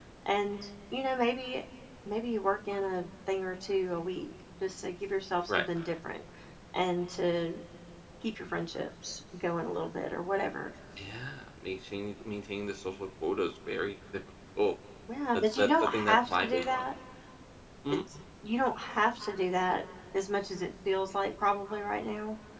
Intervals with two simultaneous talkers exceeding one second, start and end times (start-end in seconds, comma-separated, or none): 15.4-16.8